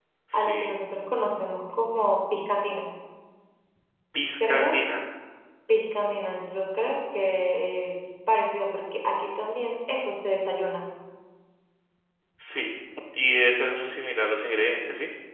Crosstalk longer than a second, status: none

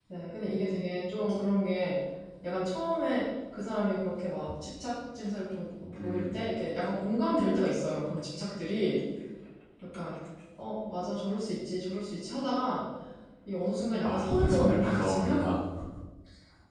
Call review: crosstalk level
present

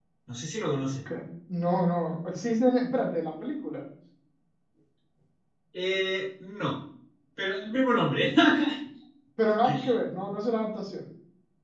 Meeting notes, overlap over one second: none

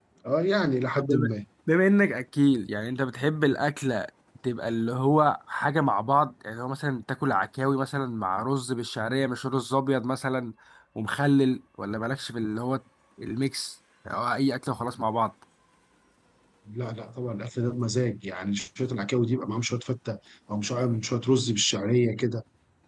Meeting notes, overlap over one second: none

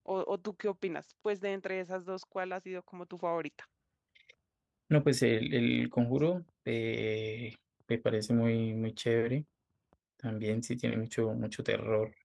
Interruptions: none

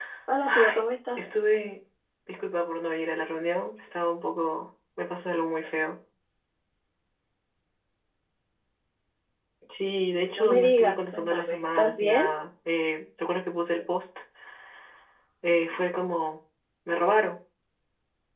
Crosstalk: present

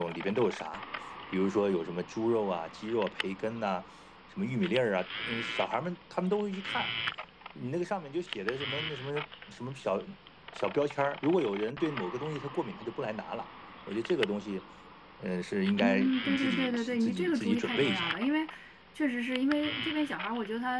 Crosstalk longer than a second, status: present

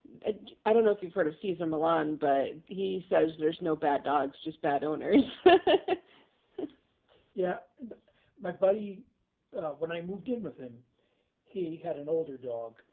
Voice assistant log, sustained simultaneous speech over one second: none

